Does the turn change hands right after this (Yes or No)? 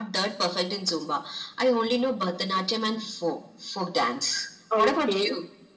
Yes